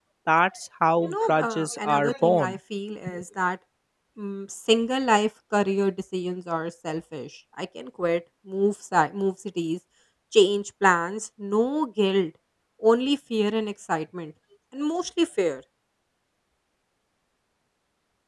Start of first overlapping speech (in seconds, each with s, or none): 1.0 s